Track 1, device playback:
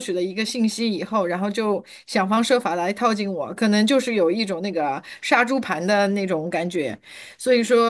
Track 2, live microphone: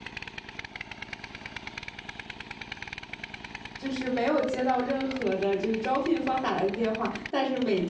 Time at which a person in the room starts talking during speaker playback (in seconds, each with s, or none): 3.8 s